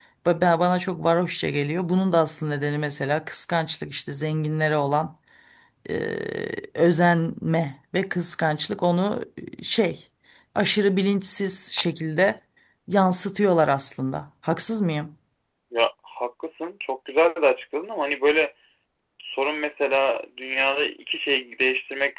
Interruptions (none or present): none